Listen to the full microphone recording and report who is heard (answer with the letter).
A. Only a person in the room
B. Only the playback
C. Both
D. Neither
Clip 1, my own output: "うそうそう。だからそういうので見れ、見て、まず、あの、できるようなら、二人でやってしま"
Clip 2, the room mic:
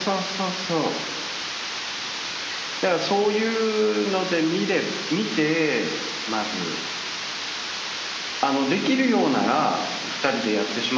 B